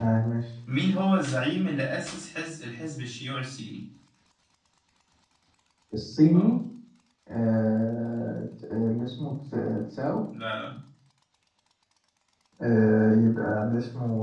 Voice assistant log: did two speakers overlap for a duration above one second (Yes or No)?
No